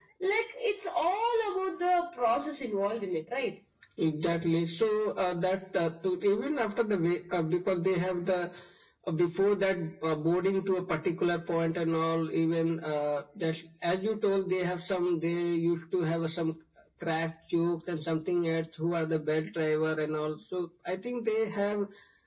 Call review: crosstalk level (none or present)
none